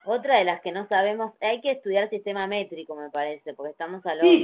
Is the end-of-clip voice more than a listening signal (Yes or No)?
Yes